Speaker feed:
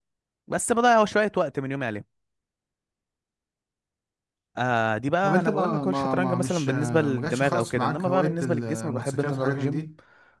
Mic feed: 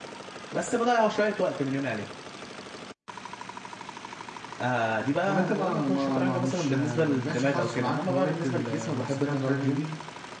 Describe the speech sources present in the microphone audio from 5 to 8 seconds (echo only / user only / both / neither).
echo only